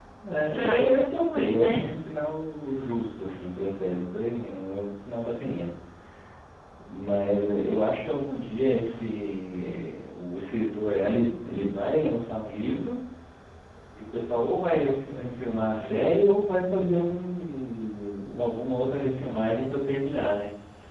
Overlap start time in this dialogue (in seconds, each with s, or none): 0.5 s